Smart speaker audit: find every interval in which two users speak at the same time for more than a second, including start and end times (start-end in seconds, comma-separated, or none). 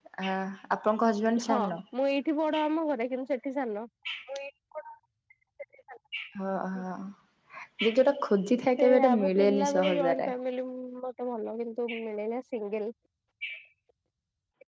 8.8-10.3